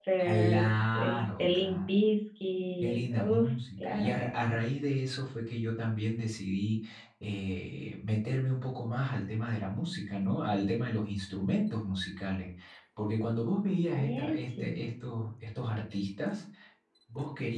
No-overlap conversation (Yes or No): No